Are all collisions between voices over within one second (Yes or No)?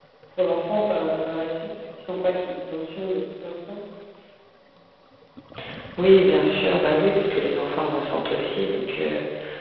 Yes